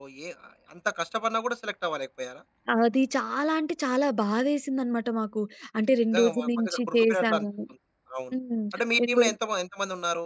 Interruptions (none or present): present